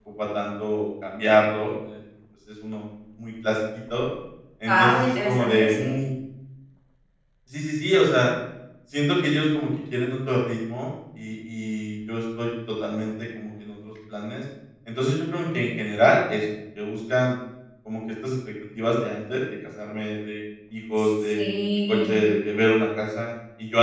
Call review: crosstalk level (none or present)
present